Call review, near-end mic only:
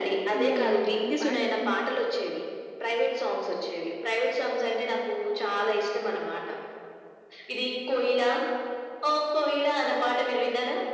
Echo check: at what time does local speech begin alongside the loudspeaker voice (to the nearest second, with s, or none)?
0 s